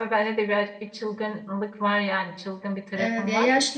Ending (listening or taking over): taking over